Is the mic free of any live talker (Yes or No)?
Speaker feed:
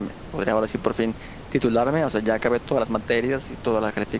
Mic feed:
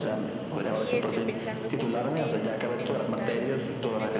No